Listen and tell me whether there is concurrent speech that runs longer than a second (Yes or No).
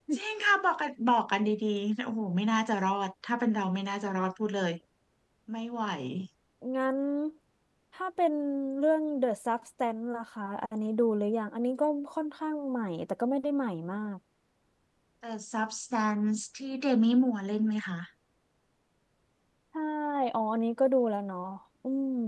No